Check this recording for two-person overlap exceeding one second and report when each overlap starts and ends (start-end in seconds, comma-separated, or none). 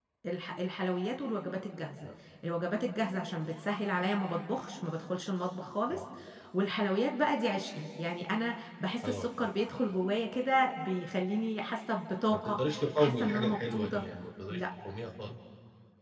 12.3-14.0